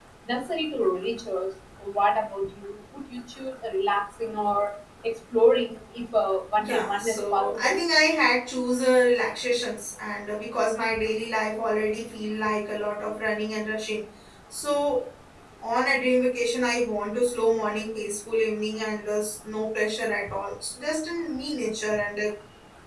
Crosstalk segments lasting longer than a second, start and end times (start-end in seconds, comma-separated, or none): 6.6-7.8